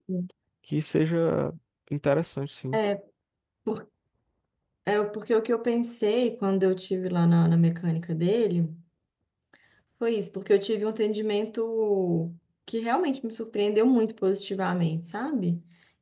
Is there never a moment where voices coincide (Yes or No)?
Yes